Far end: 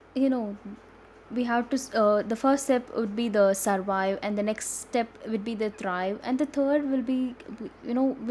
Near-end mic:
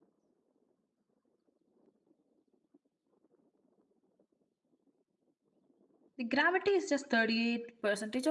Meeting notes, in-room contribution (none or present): present